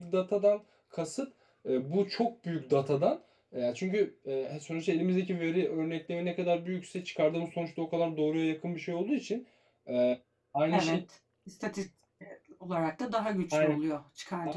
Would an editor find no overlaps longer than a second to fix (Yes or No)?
Yes